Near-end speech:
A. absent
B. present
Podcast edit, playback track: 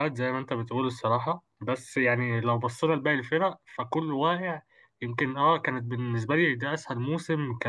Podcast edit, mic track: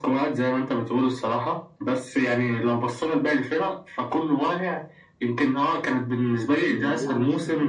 B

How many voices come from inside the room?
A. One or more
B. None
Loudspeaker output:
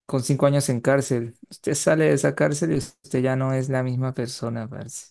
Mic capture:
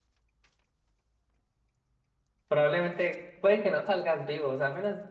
A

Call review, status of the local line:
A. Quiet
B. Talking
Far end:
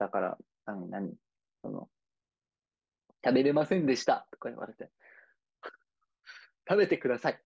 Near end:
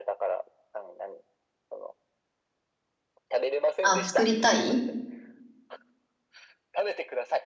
B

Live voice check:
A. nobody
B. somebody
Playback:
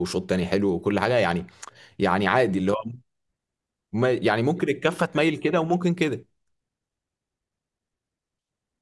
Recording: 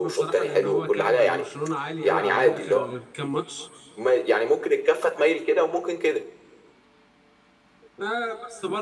B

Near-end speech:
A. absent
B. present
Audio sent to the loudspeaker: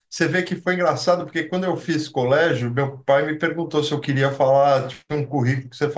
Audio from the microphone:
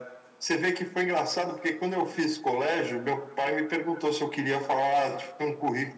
A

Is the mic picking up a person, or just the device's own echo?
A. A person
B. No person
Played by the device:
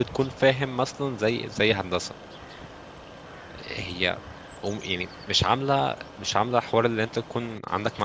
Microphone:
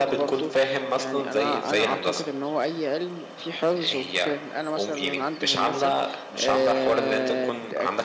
A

